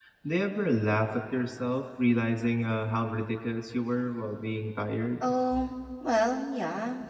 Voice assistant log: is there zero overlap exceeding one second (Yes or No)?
Yes